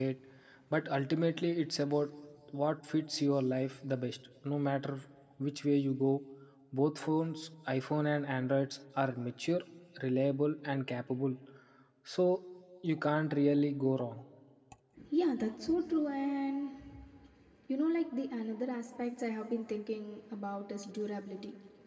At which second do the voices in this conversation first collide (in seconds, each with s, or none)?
none